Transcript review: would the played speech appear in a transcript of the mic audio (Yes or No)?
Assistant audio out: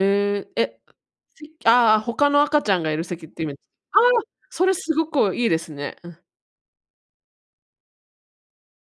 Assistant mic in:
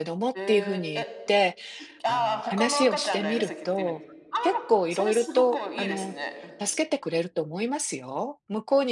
Yes